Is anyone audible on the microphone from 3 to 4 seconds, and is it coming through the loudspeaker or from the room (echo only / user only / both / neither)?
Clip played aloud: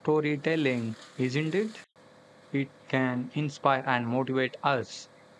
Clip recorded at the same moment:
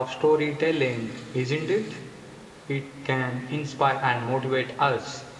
echo only